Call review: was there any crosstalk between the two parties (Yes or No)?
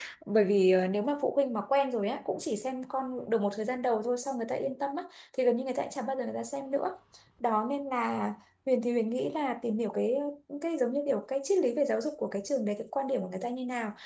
No